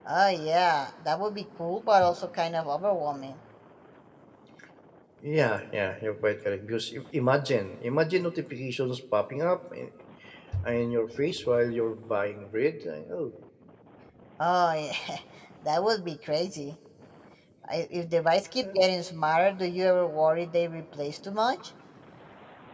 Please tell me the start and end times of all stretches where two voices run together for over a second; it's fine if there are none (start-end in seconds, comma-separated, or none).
none